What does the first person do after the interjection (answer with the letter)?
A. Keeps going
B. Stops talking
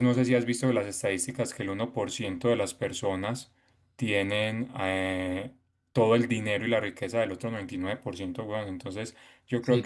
A